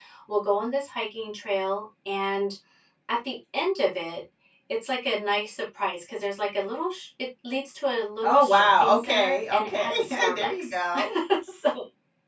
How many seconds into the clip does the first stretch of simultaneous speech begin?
8.2 s

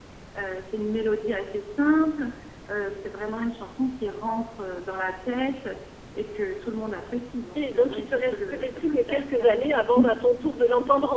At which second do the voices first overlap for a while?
7.5 s

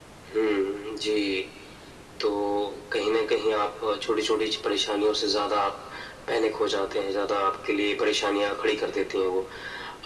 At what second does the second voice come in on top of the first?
none

